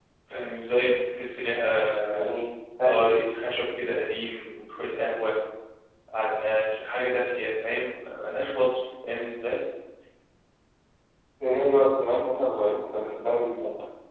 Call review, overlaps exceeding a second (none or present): none